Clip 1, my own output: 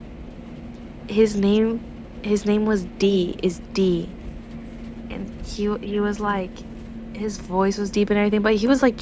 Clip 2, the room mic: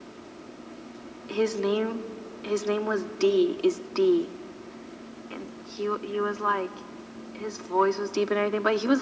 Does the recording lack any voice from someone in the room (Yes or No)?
Yes